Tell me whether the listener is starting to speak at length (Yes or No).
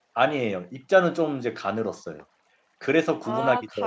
Yes